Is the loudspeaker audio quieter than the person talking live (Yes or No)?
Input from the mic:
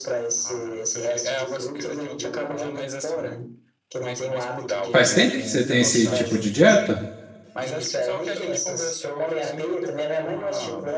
Yes